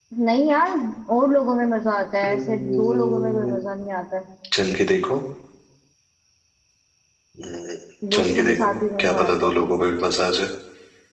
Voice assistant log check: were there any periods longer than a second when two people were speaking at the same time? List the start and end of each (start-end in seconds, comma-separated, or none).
2.3-3.5, 8.1-9.6